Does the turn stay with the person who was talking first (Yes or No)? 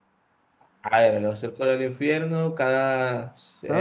Yes